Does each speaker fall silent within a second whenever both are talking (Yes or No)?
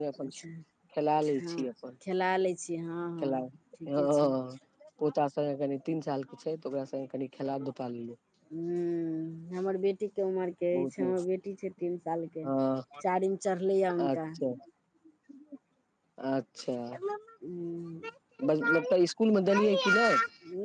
Yes